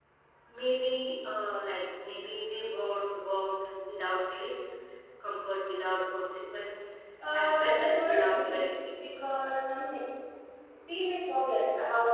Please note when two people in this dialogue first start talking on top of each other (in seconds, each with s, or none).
7.3 s